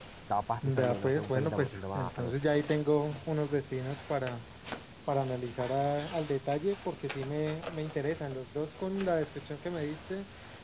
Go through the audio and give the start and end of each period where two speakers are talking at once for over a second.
0.6-2.3

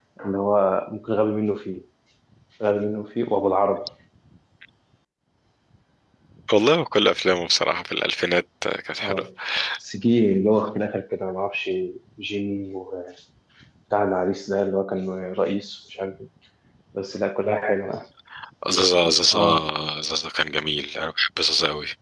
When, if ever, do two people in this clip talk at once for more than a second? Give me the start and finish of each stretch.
none

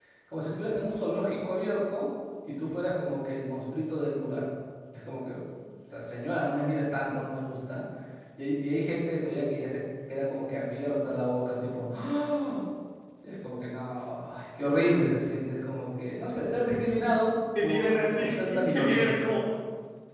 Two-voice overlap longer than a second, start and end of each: 17.6-19.1

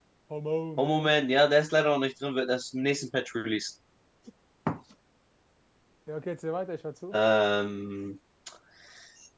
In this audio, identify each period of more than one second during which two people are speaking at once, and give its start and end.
none

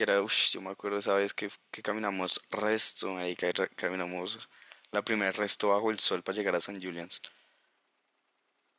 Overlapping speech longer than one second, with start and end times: none

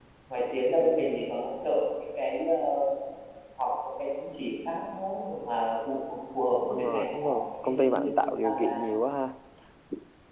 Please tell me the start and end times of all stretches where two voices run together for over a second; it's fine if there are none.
6.8-8.8

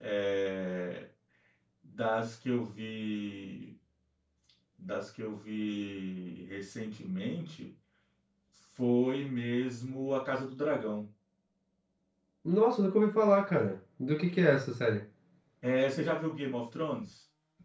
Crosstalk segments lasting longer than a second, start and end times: none

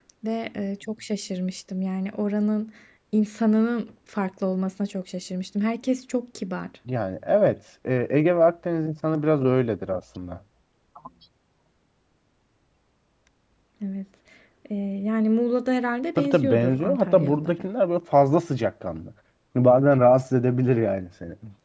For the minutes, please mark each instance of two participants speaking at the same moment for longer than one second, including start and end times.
16.2-17.6

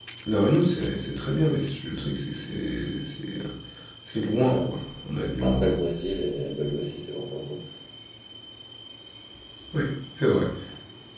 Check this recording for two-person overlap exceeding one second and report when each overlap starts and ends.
none

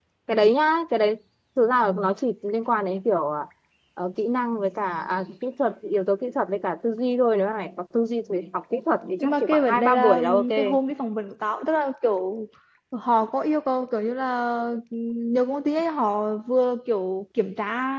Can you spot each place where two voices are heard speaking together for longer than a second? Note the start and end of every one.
9.2-10.5

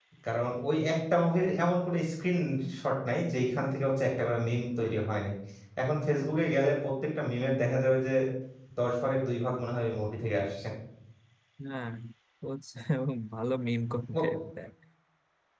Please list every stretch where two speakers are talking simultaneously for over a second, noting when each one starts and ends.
none

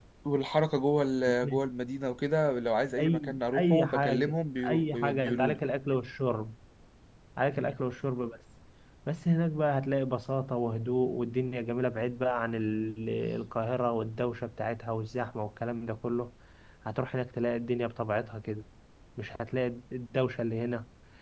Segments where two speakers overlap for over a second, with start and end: 3.0-5.6

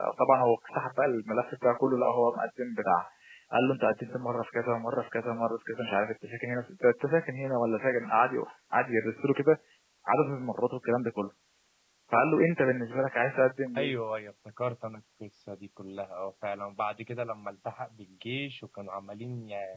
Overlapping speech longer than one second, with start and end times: none

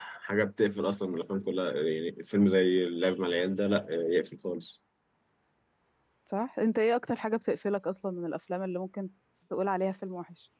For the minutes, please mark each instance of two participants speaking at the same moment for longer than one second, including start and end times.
none

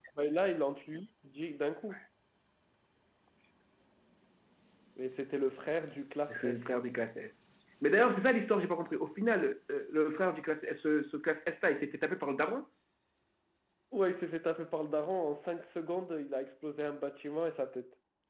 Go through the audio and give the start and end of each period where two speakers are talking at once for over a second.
none

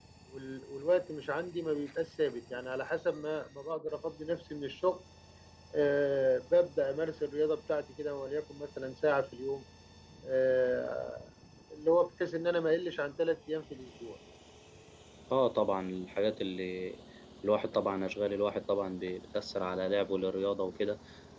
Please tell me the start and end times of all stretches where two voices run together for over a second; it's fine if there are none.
none

